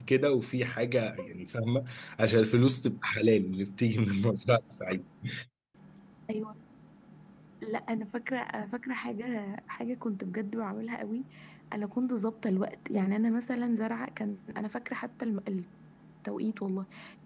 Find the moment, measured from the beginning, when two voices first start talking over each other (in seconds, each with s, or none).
none